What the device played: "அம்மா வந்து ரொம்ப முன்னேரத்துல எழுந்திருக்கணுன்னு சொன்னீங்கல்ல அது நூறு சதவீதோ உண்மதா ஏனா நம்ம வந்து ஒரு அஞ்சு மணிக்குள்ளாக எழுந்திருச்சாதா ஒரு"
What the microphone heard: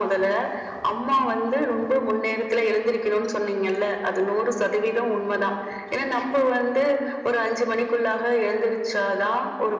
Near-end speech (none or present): none